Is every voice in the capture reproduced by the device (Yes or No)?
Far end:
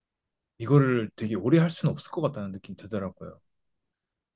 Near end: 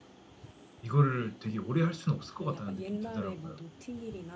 No